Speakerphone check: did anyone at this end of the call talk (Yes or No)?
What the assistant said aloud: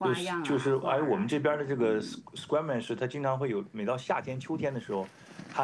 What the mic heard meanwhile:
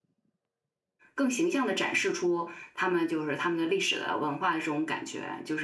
Yes